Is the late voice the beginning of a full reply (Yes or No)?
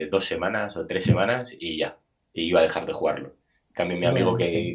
No